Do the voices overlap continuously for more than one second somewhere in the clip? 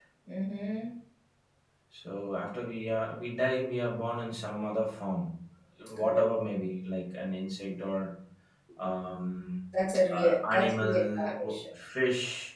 Yes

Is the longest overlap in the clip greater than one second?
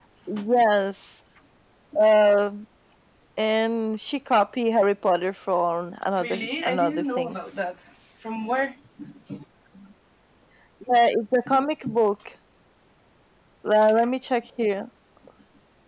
Yes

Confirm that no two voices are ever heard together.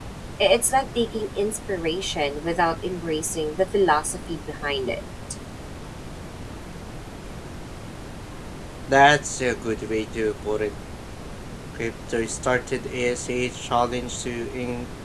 Yes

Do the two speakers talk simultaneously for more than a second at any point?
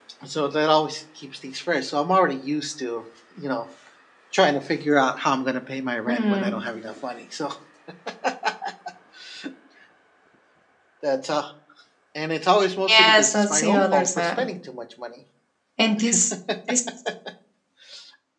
Yes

